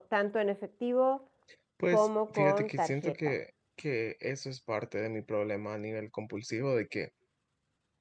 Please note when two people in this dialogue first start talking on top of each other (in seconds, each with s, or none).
1.9 s